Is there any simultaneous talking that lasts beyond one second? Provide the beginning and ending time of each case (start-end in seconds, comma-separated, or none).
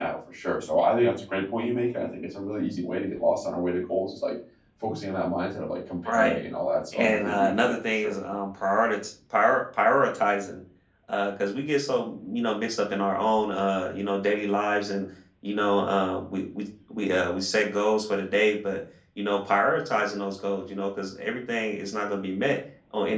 6.9-8.1